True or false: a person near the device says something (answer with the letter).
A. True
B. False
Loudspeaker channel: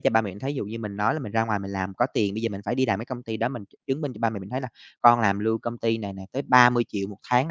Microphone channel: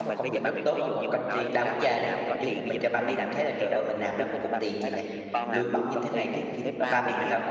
A